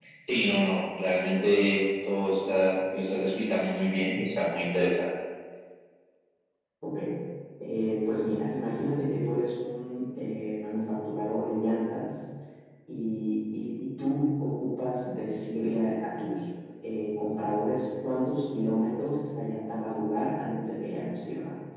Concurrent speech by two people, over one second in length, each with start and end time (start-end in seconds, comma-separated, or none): none